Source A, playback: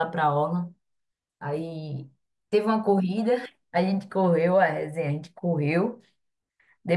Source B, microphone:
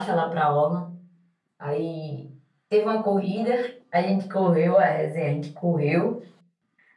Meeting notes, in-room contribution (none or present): none